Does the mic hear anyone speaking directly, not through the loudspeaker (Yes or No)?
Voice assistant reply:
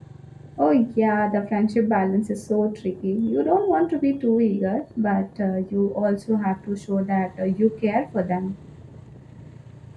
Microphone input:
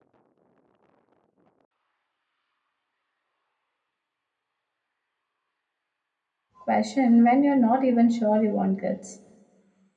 Yes